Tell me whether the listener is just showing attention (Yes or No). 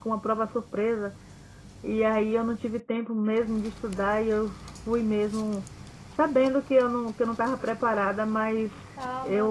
Yes